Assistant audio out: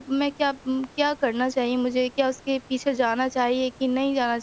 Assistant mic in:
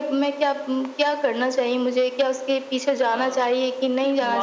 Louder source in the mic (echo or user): echo